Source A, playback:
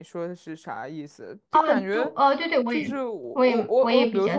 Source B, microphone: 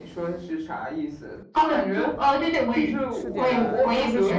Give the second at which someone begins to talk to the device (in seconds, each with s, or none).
3.1 s